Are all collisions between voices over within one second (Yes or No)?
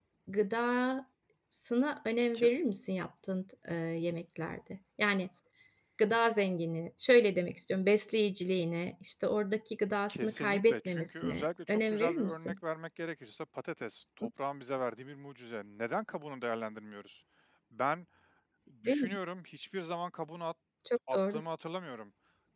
No